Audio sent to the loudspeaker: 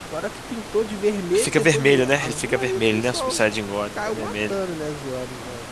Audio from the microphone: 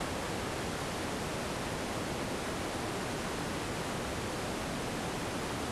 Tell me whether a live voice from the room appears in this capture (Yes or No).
No